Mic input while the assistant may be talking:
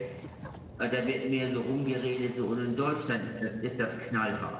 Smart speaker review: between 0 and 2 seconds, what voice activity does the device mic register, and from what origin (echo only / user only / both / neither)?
echo only